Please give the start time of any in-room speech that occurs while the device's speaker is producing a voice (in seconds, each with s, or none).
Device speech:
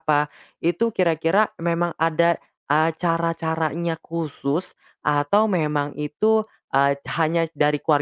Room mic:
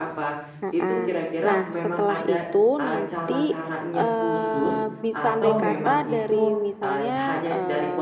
0.6 s